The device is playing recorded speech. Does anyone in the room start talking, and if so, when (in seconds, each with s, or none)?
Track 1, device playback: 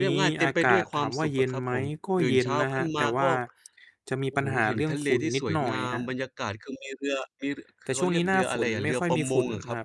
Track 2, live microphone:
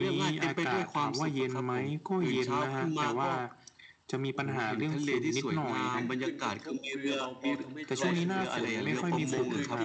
5.8 s